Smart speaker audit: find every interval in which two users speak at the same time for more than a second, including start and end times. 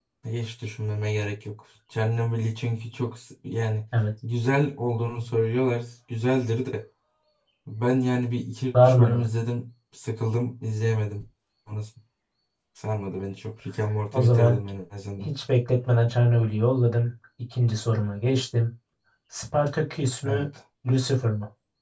none

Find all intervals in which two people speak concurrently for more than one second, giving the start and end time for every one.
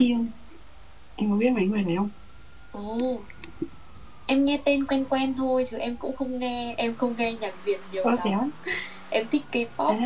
none

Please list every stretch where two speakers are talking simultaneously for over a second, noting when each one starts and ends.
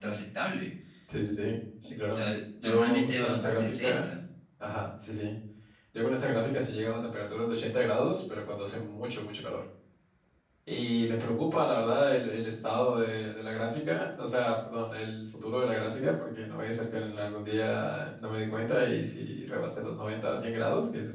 2.6-4.0

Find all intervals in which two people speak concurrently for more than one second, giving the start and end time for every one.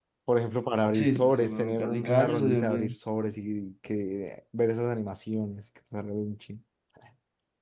0.9-3.0

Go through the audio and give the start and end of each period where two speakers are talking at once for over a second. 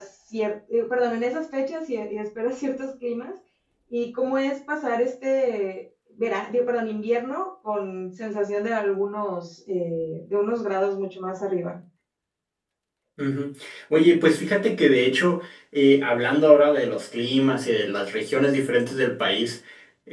none

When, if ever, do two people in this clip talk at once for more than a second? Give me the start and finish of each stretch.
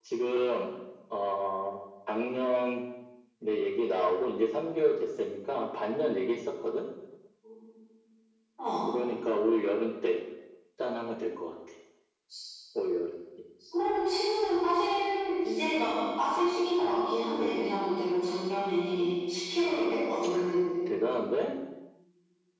none

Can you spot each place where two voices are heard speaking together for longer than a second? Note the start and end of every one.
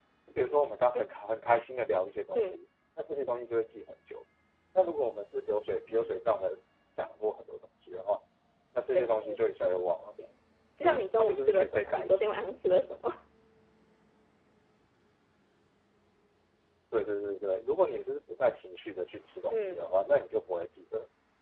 10.8-12.4

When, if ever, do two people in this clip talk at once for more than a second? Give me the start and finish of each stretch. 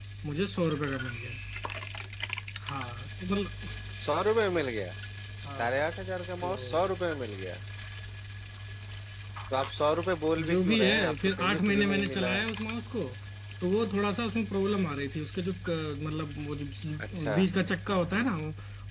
10.5-12.5

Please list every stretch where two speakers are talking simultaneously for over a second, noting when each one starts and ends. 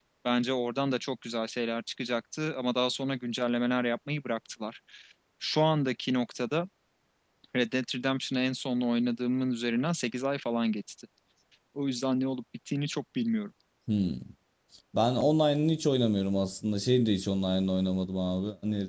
none

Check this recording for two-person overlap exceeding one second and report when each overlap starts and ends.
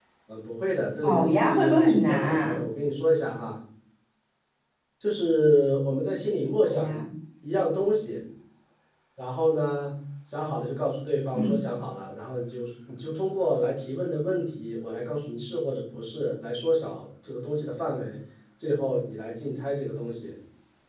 1.0-2.6

